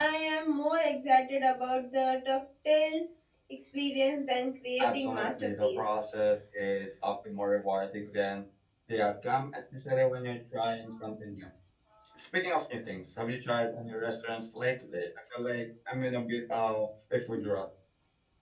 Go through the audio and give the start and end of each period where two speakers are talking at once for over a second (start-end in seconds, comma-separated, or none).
4.8-6.3